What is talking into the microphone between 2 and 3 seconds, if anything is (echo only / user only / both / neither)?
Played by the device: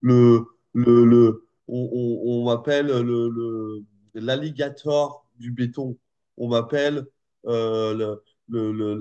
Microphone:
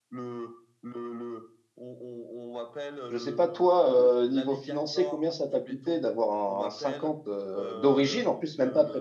echo only